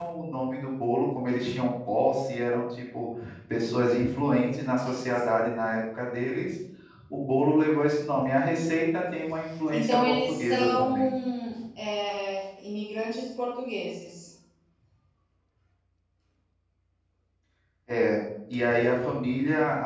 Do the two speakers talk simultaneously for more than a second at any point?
Yes, from 9.7 s

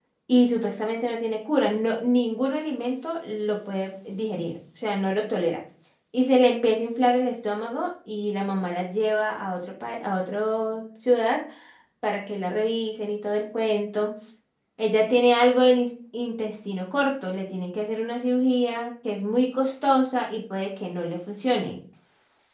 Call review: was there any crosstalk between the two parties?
No

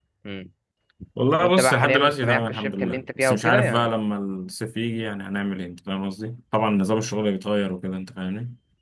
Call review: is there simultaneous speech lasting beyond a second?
Yes, from 1.4 s

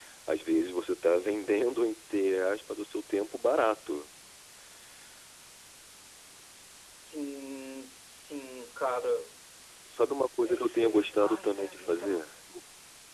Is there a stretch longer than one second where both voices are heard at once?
Yes, from 10.4 s

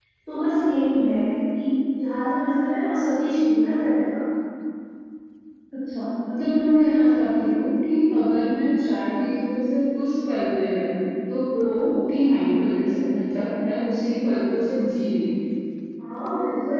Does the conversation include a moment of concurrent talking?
No

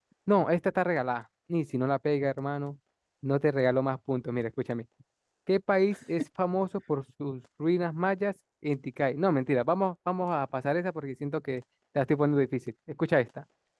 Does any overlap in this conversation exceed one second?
No

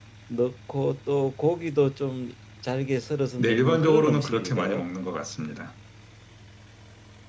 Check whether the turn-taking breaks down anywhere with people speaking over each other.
Yes, from 3.4 s

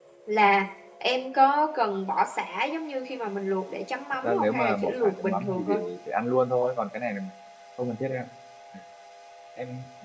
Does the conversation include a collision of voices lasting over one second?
Yes, from 4.2 s

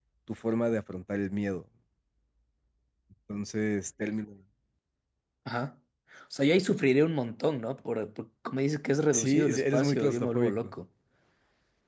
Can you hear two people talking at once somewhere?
Yes, from 9.1 s

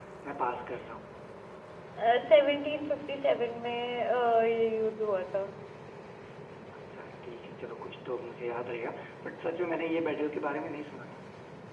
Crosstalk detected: No

